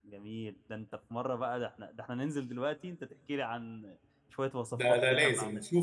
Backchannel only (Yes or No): No